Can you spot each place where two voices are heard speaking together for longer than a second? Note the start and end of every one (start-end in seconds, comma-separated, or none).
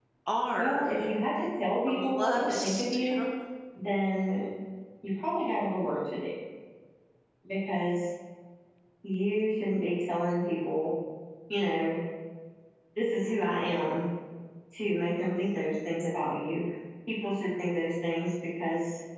1.9-3.2